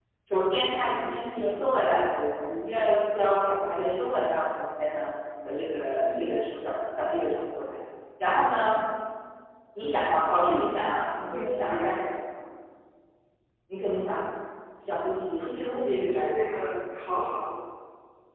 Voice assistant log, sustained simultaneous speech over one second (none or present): present